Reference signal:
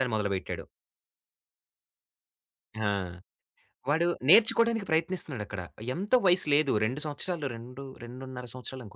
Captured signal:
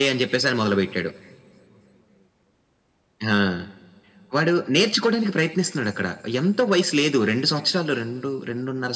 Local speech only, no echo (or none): none